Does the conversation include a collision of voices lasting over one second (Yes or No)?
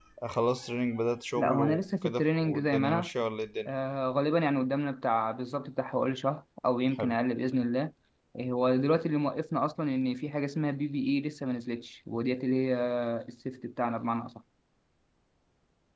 Yes